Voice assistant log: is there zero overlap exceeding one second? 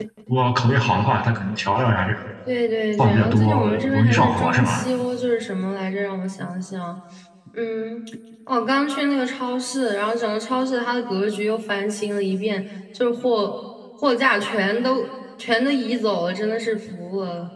No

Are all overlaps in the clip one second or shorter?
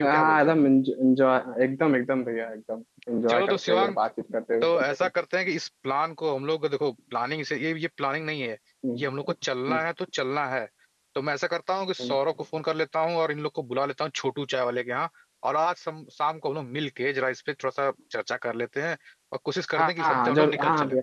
No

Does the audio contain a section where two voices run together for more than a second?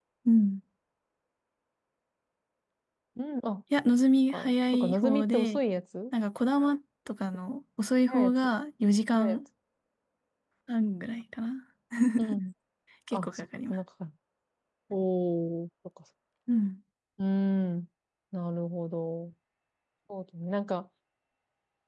Yes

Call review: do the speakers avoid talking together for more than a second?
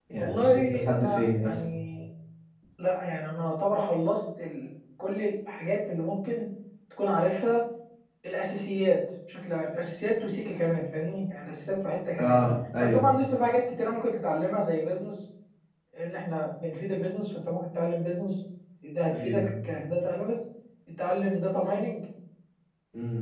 No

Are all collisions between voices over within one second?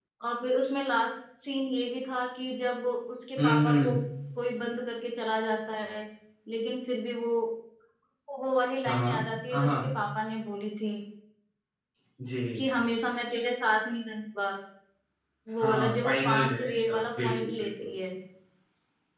No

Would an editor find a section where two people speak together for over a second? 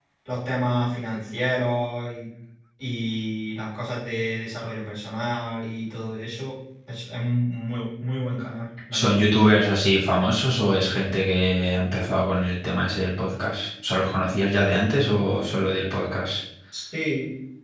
No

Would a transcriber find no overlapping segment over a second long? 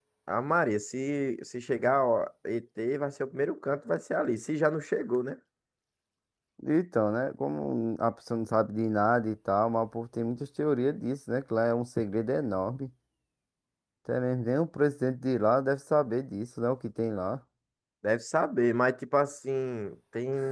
Yes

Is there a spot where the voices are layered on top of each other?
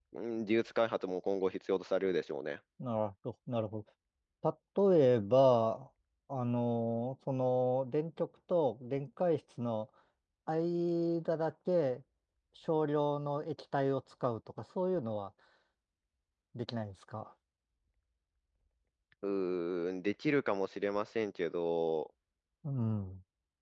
No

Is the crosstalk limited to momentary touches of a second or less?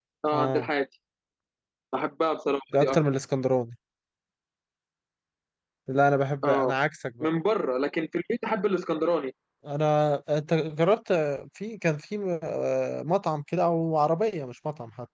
Yes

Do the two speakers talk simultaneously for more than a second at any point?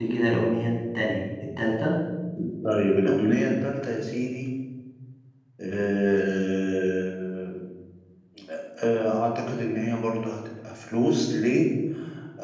No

